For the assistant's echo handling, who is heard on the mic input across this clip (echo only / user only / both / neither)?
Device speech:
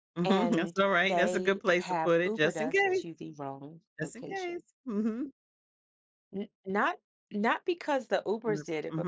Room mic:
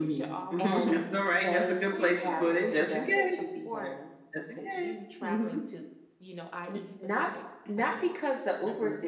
both